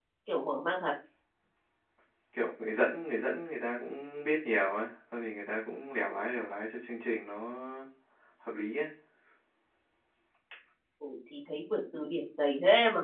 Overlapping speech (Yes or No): No